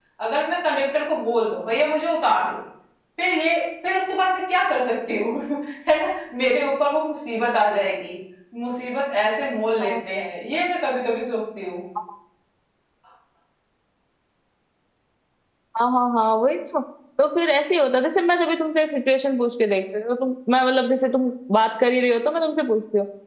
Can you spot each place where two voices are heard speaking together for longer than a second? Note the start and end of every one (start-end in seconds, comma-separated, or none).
none